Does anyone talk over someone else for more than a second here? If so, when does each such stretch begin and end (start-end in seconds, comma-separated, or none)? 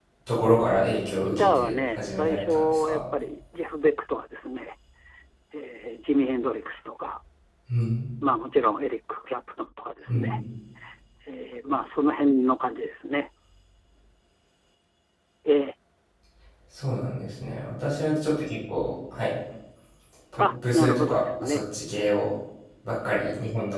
1.2-3.0, 20.4-21.6